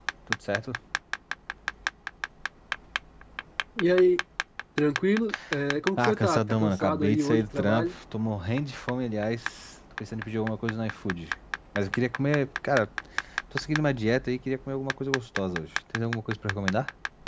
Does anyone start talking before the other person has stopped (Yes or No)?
Yes